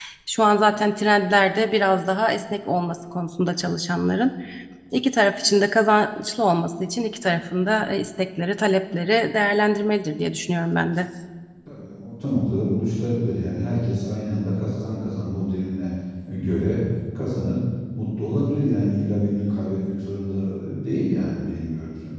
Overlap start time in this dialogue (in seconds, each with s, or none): none